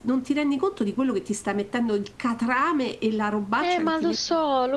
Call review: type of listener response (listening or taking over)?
taking over